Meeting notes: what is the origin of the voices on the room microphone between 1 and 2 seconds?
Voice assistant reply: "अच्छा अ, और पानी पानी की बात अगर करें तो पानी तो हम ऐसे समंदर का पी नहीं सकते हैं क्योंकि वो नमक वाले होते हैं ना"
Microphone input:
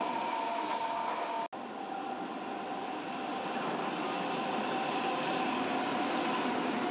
neither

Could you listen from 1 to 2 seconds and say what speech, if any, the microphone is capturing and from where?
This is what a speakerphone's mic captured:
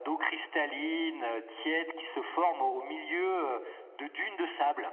echo only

